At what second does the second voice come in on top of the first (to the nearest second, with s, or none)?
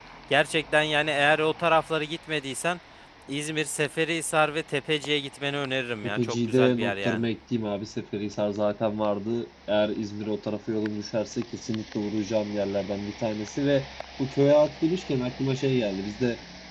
6 s